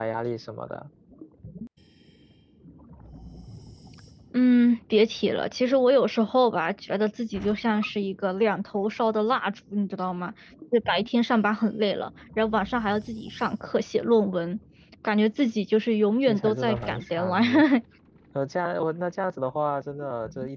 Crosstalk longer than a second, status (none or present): present